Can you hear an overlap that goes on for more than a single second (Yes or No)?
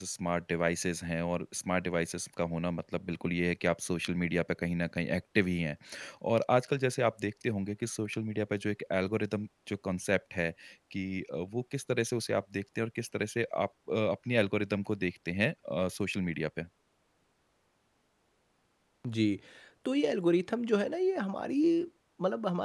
No